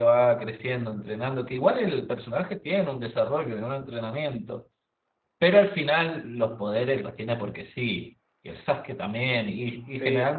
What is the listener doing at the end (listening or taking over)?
listening